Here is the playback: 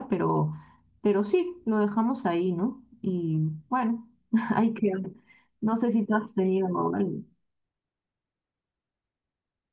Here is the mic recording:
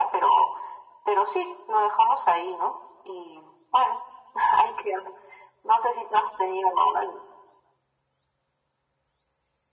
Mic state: echo only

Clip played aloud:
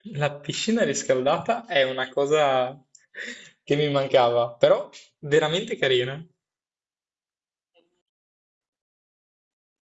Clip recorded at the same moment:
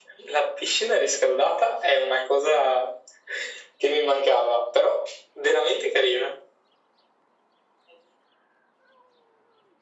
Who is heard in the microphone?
echo only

